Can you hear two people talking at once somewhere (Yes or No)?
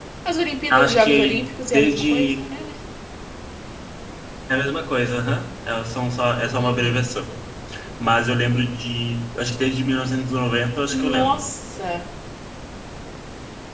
Yes